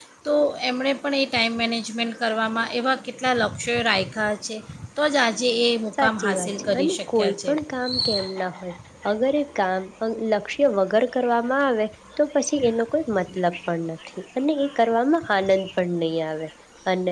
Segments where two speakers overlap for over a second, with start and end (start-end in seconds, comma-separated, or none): 6.0-7.5